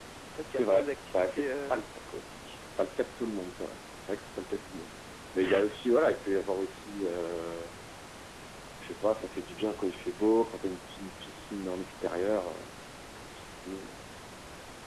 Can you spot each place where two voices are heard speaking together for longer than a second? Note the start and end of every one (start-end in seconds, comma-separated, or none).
0.5-1.8